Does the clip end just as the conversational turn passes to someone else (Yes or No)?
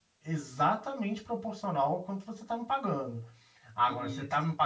No